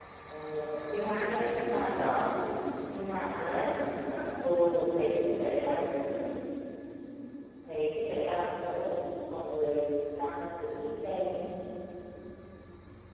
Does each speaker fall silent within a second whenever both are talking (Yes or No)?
No